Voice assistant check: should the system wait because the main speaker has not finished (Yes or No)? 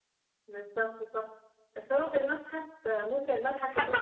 No